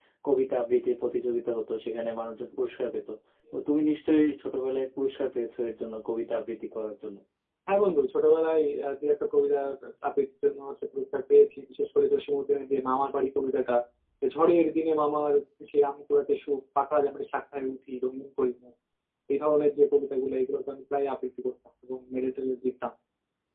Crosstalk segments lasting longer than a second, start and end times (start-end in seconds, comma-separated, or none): none